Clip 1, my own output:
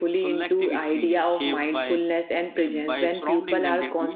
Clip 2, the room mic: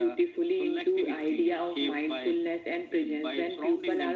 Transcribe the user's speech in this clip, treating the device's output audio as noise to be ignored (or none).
none